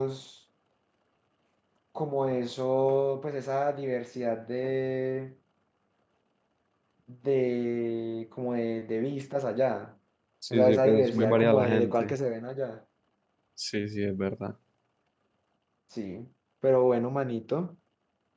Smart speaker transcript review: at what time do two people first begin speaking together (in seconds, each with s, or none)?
10.5 s